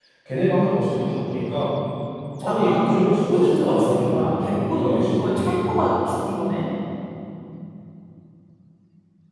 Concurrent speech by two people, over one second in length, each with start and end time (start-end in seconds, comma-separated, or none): 2.4-5.6